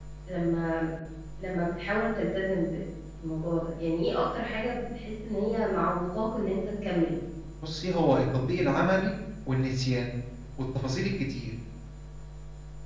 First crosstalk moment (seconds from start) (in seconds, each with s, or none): none